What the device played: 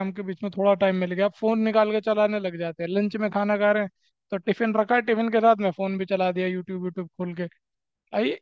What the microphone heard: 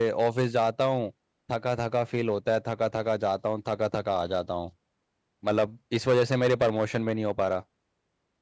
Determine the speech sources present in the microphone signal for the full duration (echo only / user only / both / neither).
user only